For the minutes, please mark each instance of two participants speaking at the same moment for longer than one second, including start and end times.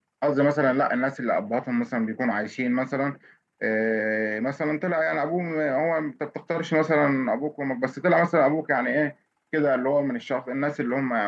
none

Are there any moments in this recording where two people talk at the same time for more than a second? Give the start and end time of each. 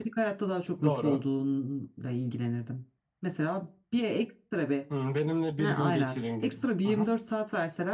5.6-7.1

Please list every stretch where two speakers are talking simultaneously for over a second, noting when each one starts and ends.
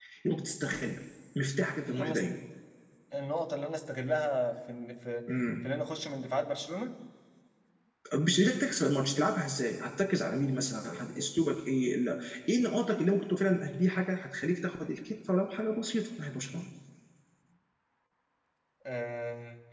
none

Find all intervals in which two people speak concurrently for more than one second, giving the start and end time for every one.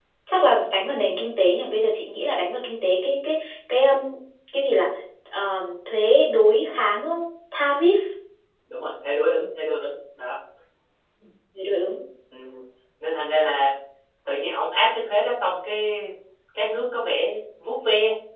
none

